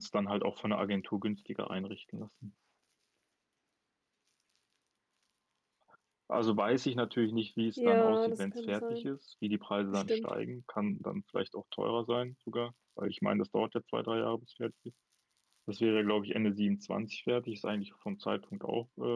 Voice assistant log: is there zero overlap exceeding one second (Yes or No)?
No